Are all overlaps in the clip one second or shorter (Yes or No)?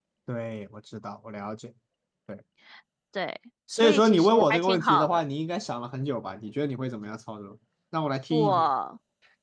No